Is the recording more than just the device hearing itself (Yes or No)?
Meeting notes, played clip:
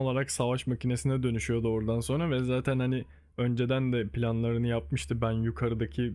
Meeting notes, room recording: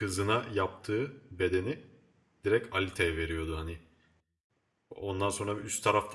Yes